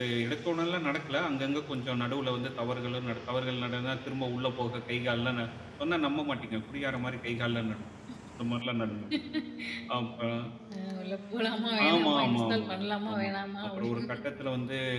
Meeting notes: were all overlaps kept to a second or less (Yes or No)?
No